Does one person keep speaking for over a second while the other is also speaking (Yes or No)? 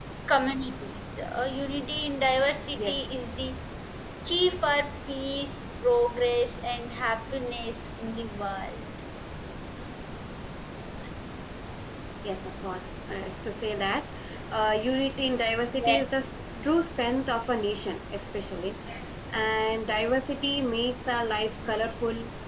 No